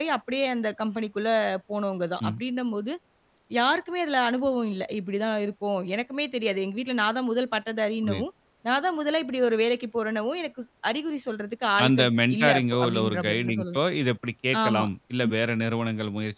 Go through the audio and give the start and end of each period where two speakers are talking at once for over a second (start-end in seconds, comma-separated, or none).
11.8-13.8